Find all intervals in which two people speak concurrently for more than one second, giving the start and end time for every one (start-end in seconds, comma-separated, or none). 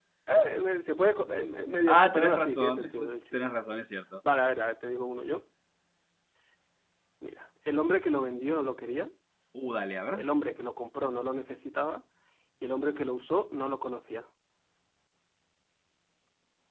1.9-3.4